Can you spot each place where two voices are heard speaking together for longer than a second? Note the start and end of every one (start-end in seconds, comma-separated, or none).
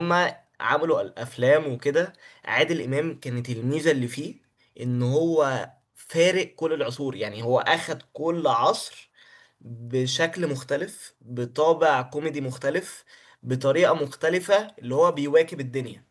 none